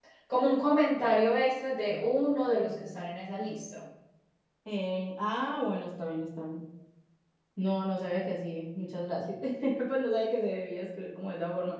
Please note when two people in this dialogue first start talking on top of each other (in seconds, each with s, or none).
none